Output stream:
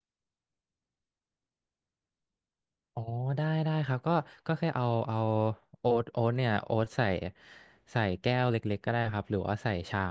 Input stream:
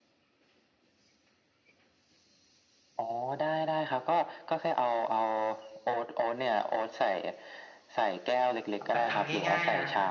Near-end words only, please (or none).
แบบทำง่ายๆนะ